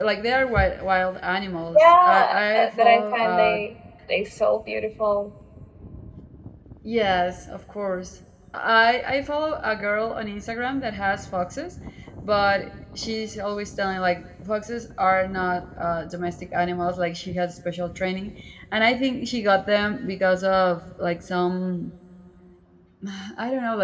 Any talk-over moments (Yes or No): Yes